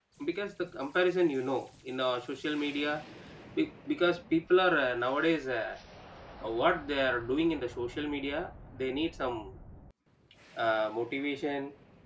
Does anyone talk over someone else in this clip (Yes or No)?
No